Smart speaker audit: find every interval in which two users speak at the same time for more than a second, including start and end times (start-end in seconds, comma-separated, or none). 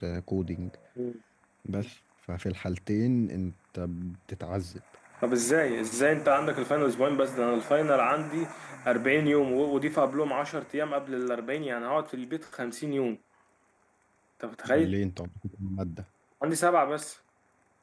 none